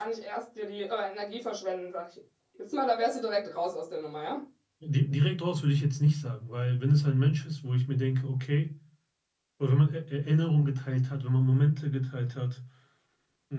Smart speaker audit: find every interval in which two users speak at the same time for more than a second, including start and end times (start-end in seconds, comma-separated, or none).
none